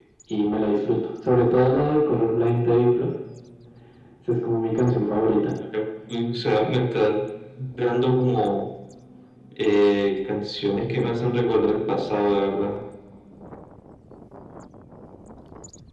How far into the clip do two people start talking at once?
none

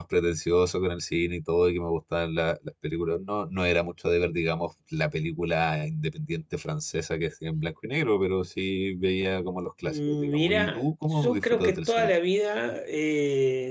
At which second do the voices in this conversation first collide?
9.9 s

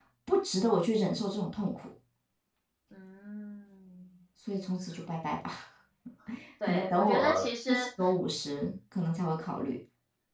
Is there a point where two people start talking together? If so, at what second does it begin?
6.6 s

